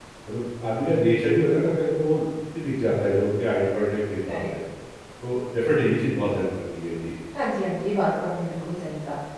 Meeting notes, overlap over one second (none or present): none